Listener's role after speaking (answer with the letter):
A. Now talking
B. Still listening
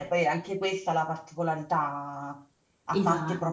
B